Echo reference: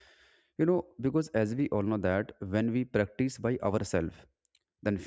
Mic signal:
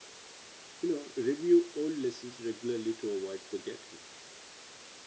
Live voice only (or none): you know review all lessons regularly to avoid forgetting